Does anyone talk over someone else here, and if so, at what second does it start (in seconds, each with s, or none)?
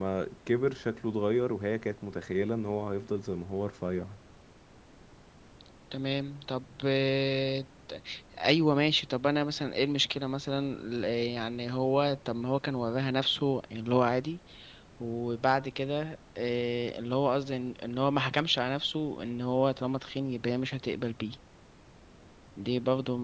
none